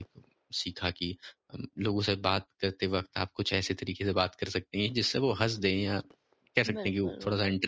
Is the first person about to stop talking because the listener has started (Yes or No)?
Yes